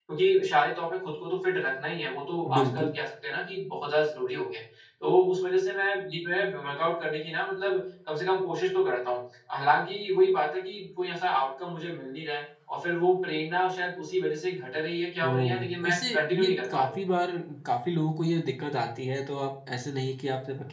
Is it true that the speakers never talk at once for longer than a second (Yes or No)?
No